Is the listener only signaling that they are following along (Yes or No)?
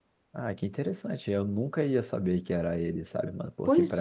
Yes